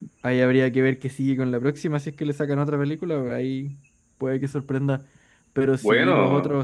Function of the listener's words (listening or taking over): listening